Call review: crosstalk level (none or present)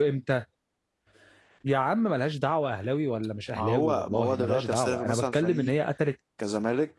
present